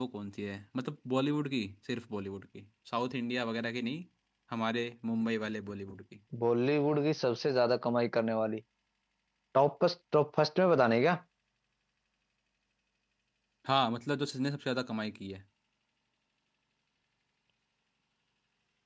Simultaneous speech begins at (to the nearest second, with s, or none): none